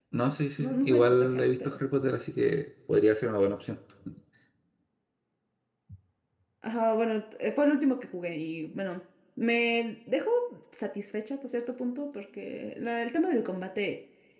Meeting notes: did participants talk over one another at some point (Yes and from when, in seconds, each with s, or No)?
Yes, from 0.6 s